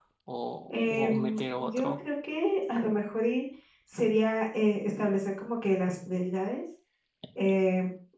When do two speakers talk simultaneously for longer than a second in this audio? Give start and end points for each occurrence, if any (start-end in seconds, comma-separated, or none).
0.7-2.0